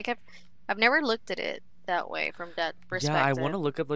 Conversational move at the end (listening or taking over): taking over